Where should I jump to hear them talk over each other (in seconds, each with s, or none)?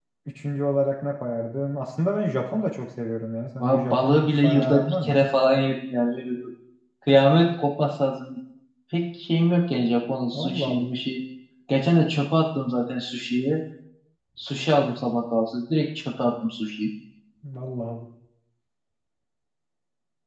3.6 s